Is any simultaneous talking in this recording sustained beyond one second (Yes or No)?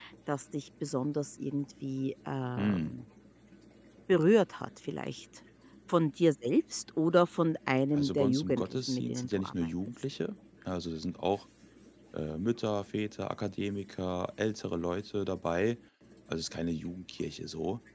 Yes